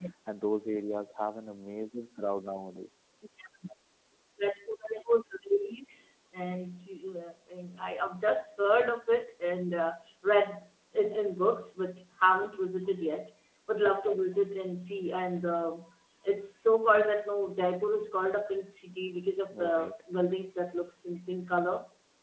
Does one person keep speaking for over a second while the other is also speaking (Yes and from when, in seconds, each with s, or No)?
No